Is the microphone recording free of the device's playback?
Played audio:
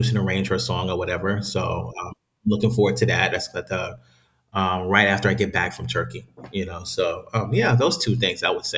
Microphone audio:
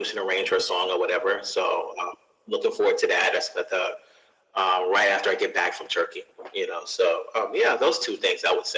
No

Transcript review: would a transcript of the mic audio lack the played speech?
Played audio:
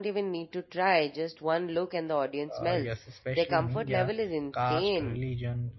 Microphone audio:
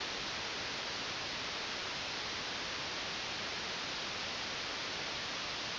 Yes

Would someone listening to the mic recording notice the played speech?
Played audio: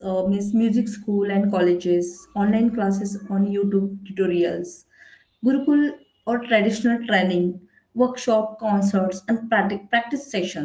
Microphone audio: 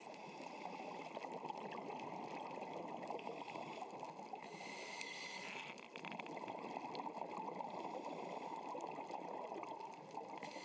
No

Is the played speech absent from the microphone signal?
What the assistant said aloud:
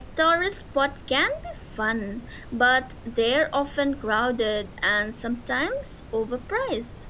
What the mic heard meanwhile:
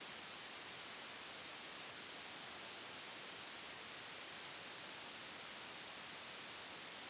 Yes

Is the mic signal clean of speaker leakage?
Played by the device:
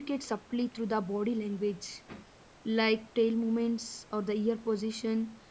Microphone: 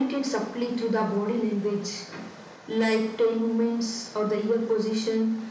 No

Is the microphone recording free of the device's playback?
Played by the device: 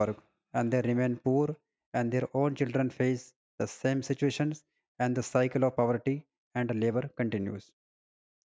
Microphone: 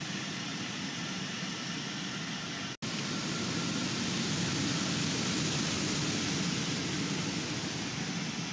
Yes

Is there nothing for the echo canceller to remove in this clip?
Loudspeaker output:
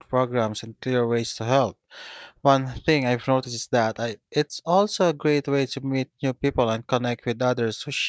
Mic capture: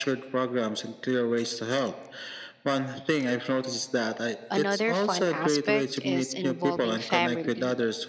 No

